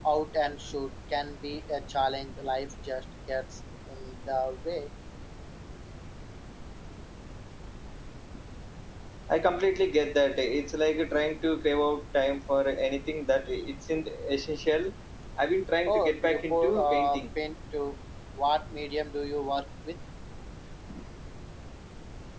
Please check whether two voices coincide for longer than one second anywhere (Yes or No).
Yes